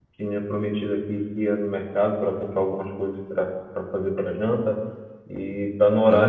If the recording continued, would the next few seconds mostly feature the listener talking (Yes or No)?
No